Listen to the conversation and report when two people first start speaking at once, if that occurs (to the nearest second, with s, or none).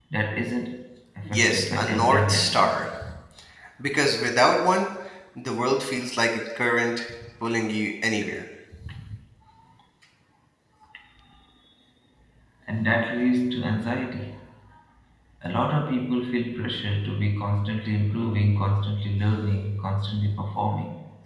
1 s